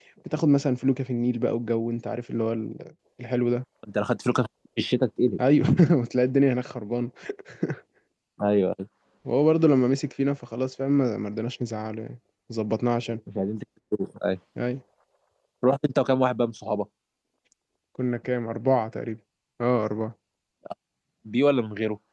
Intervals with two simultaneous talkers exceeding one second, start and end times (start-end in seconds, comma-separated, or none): none